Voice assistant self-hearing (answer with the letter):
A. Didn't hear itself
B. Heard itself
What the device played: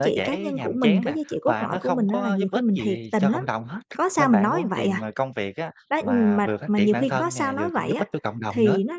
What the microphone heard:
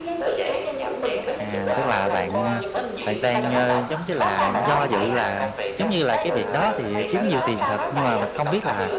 B